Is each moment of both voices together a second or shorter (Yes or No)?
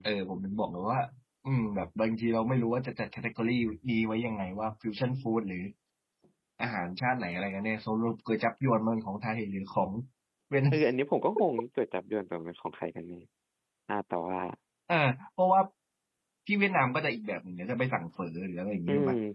Yes